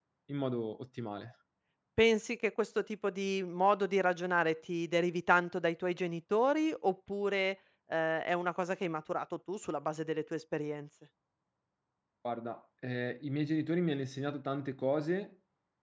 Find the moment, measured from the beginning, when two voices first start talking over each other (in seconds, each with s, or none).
none